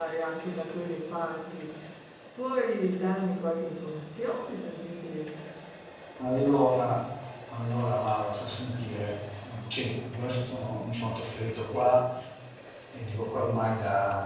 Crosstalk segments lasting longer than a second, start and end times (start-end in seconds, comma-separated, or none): none